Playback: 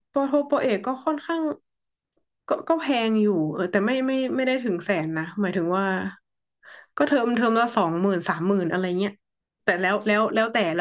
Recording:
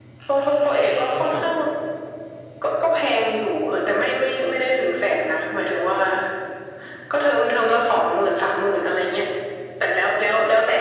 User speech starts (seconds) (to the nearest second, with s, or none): 1 s